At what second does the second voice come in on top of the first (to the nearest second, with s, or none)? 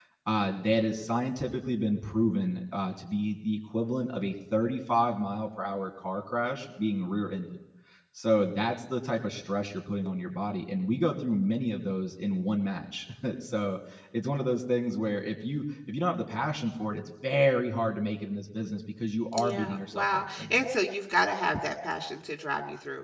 19 s